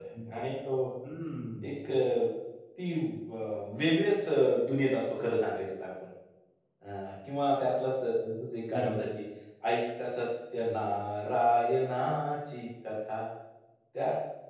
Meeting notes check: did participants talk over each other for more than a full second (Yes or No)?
No